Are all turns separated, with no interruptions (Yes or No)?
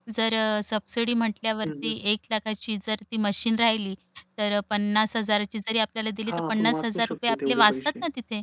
No